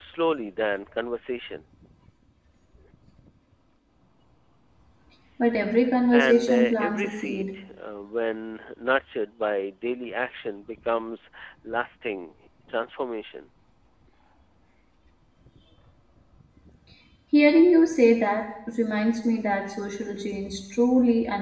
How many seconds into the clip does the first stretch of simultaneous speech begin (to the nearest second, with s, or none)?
6 s